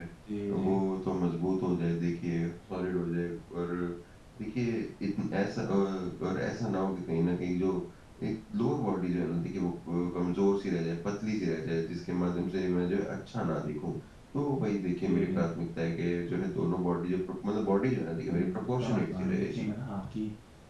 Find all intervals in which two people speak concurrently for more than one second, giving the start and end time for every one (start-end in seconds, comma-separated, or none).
18.3-19.7